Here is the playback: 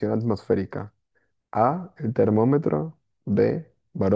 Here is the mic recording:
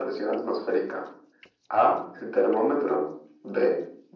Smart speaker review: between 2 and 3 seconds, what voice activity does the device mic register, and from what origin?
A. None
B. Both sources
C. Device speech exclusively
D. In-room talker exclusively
C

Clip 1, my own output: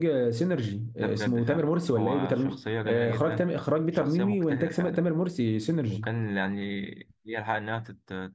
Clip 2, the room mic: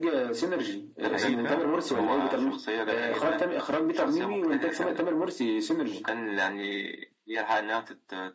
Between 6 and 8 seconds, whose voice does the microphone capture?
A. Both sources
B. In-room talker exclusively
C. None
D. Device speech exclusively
D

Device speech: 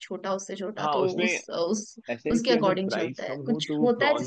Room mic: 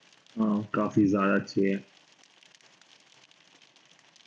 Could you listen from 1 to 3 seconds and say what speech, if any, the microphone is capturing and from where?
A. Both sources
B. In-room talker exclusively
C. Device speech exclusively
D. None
B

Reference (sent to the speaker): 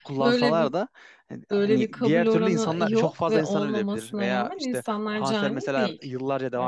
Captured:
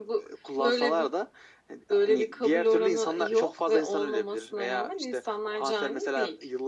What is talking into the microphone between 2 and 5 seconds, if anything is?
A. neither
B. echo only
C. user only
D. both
B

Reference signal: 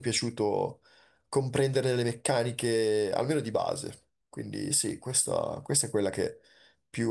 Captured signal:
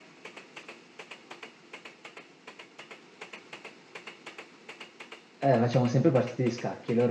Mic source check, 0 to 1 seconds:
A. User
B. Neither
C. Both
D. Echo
B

